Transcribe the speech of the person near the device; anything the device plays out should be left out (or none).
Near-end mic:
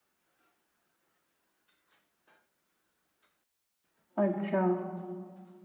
ਅੱਛਾ